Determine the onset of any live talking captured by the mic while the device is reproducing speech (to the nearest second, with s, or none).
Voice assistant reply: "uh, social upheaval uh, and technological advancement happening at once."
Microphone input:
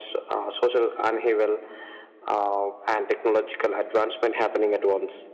none